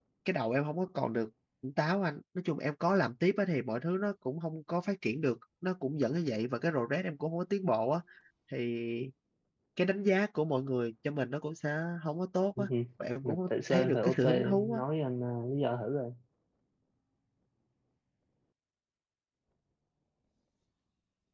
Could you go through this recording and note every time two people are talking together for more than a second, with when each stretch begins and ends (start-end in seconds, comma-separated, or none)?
13.2-14.8